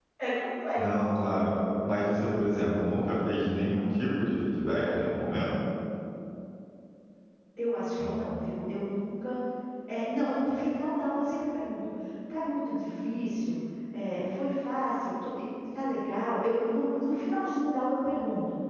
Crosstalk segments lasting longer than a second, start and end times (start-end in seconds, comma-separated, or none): none